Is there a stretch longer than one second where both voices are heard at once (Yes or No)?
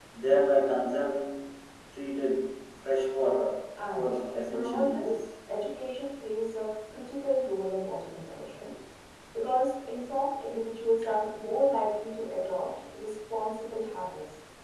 Yes